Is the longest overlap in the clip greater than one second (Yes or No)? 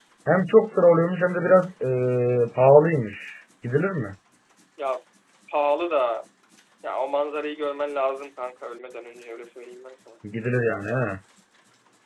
No